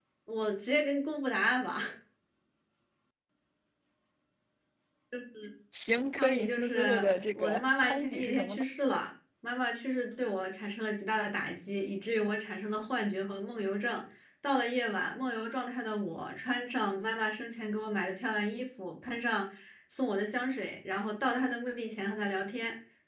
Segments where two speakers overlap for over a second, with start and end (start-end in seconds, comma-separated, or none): 6.2-8.6